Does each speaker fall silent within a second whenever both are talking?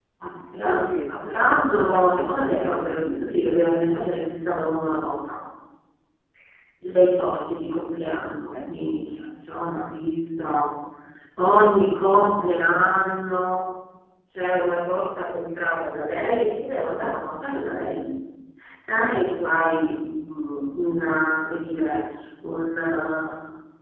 No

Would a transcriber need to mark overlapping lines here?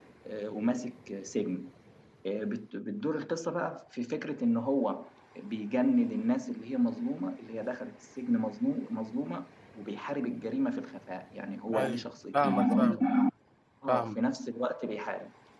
Yes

